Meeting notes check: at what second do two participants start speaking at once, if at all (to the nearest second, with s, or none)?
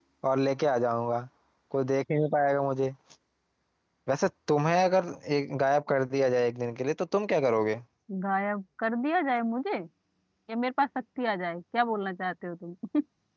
none